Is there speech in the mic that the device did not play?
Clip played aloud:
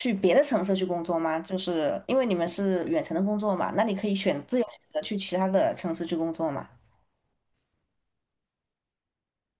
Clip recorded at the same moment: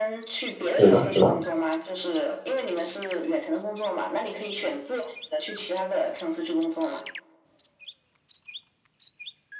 Yes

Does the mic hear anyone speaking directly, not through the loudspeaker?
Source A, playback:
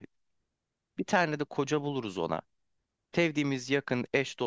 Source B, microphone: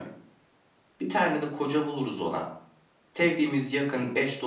No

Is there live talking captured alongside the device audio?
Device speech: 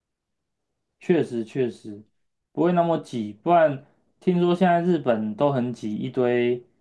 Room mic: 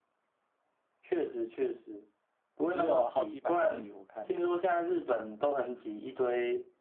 Yes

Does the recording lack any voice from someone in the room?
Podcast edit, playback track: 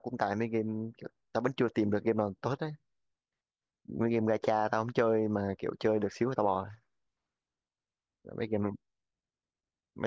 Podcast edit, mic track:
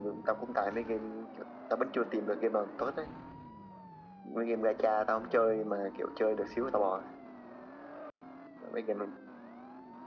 Yes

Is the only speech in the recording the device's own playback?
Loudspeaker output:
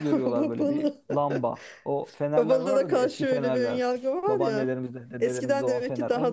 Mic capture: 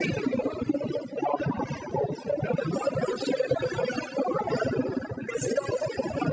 Yes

